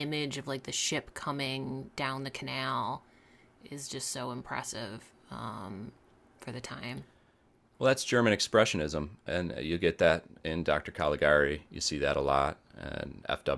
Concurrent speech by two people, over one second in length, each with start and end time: none

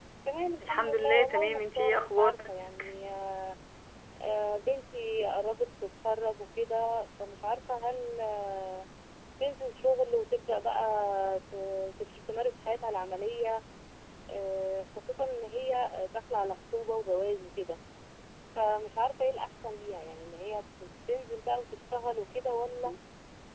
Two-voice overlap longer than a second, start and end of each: 0.6-2.3

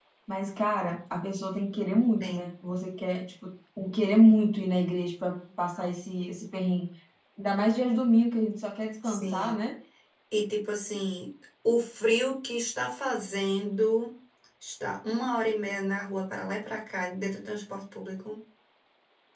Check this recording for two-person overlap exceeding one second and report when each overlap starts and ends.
none

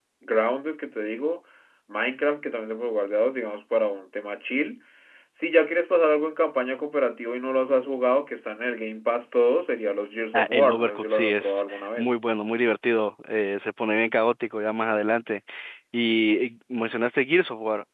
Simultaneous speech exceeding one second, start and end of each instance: 10.3-12.1

